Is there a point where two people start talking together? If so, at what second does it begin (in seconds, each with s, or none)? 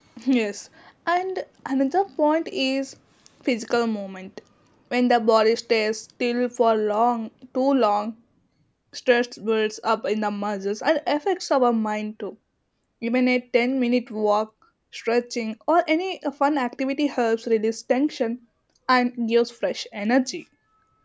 none